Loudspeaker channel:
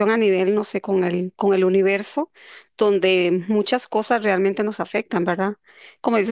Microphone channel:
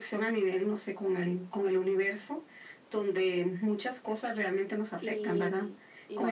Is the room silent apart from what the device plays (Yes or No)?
No